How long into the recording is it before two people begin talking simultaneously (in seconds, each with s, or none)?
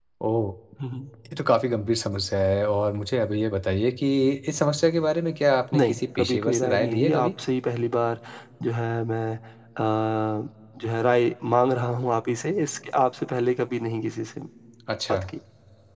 5.8 s